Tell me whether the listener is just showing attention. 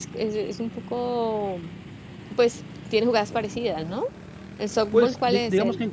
No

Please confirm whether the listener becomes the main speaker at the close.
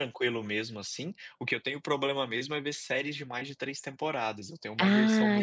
Yes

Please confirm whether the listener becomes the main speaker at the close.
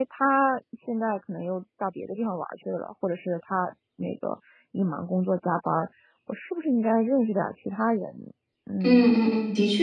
Yes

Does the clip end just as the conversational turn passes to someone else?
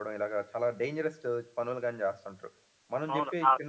Yes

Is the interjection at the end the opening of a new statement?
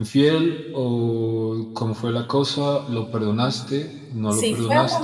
Yes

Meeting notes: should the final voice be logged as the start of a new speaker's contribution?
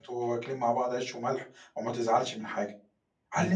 Yes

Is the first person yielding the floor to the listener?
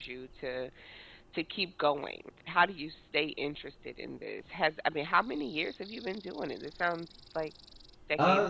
Yes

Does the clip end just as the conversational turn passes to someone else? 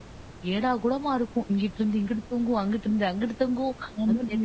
No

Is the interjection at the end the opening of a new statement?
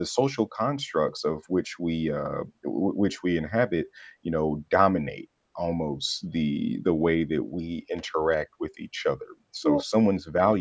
No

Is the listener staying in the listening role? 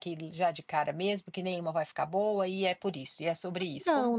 No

